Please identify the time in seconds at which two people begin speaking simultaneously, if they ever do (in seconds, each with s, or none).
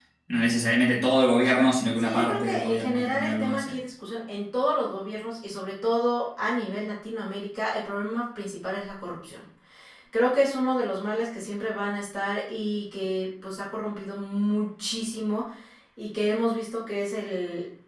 2.0 s